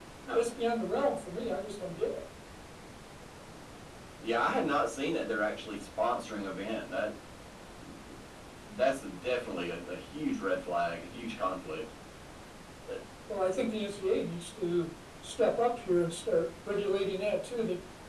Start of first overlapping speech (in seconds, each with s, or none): none